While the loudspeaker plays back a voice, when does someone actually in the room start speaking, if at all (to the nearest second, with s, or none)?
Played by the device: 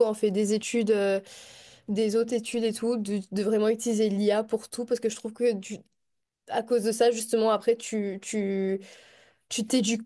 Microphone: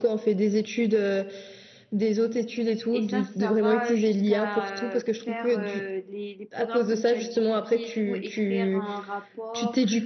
3 s